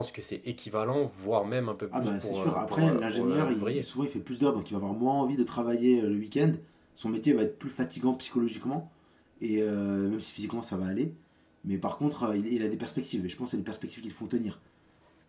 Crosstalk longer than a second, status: present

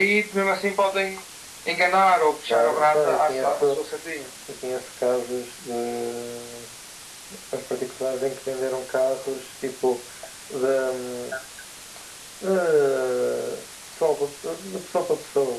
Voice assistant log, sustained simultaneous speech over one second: present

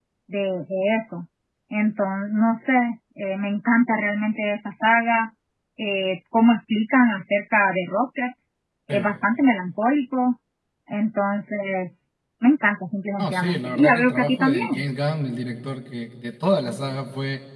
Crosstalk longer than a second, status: present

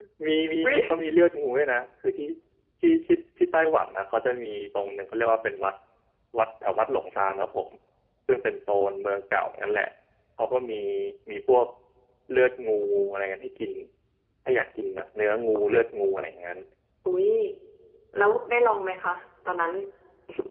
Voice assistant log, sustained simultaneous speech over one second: none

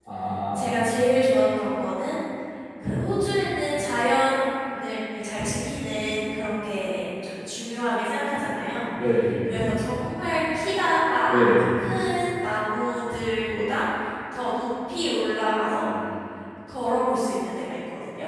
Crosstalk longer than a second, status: none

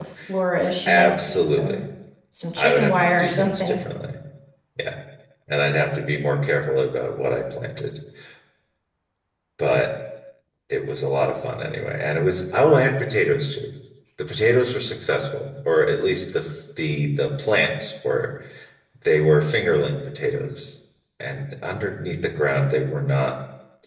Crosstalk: present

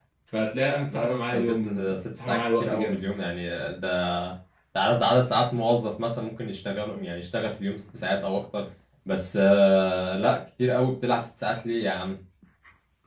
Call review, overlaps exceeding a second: present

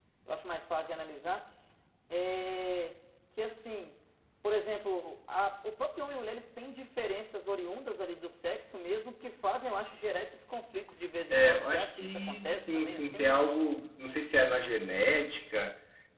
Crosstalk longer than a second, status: present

